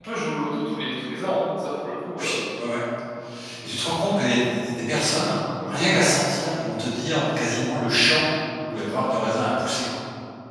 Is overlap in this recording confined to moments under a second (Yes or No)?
Yes